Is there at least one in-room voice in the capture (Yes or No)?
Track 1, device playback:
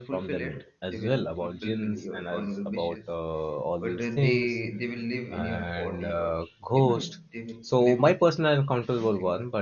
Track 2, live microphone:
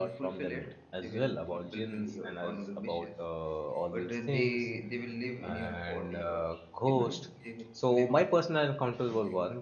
No